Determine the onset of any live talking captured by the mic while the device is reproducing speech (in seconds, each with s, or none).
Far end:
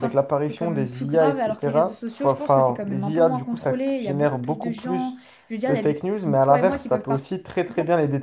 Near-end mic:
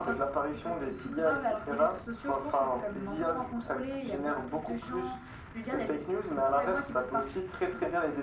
none